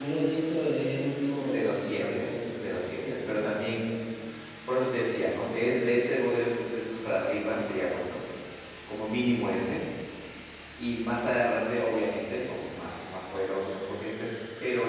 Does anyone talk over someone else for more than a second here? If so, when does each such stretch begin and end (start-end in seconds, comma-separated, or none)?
1.3-3.3